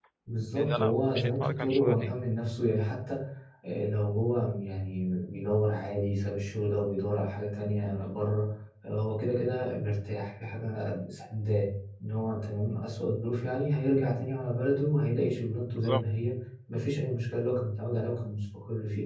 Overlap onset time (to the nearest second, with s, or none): 1 s